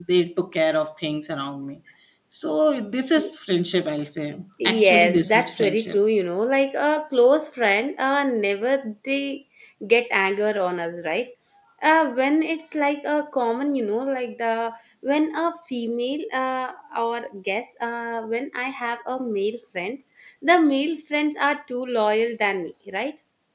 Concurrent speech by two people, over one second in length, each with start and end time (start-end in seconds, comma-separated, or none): 4.6-6.0